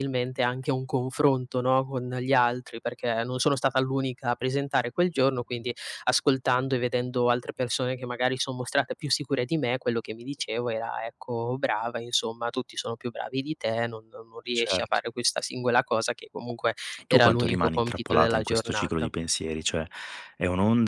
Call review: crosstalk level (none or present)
present